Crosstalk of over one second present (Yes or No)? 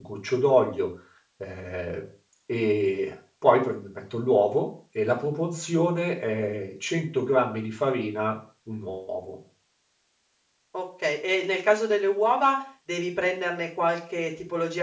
No